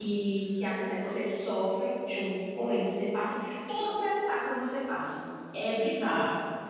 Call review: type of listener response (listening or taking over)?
taking over